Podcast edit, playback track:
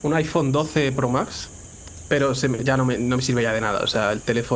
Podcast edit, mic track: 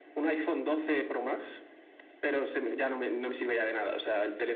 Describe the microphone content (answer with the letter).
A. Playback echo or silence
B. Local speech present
A